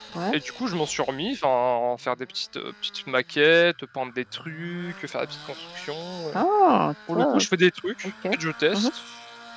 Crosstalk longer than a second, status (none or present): none